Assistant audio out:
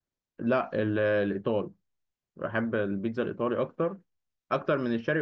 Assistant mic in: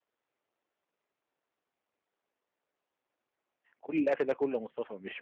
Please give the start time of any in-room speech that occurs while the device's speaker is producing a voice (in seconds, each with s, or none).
3.8 s